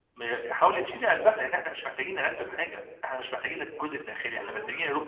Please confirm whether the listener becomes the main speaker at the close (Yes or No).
Yes